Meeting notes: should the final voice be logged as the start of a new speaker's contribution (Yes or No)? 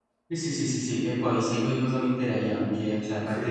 No